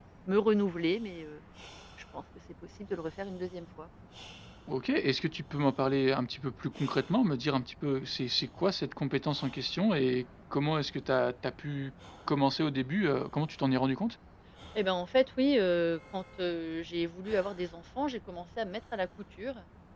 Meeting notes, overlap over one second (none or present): none